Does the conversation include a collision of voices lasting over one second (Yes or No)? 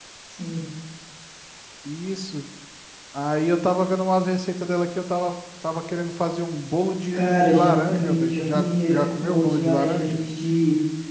Yes